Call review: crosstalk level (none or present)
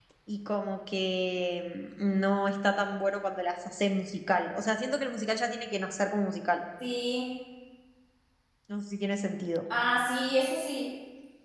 none